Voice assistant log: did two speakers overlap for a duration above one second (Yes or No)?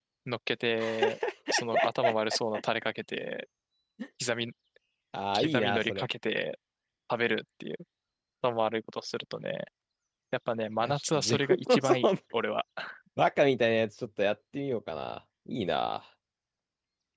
Yes